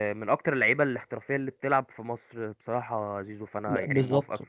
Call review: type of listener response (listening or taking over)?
taking over